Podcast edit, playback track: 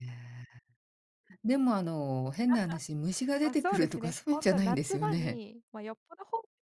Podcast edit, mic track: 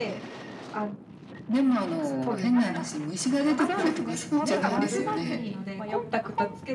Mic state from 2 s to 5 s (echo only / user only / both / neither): both